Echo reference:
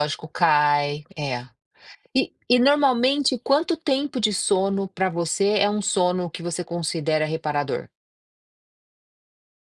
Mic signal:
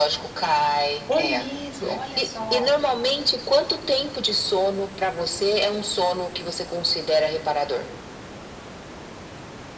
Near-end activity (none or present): present